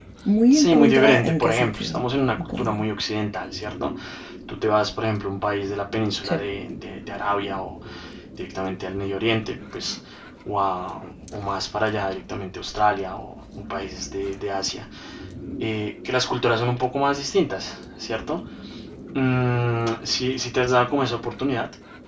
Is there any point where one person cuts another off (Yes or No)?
Yes